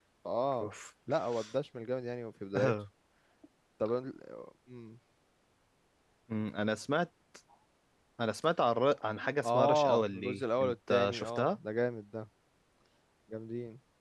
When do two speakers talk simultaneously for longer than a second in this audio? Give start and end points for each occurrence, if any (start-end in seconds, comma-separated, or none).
9.4-11.6